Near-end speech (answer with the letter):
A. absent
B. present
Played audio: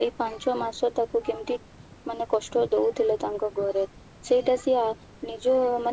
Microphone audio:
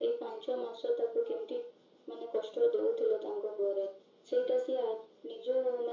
A